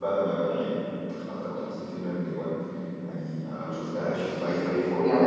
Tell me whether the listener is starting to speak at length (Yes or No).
Yes